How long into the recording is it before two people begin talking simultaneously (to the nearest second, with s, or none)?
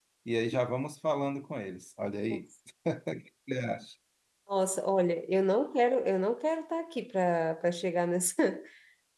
none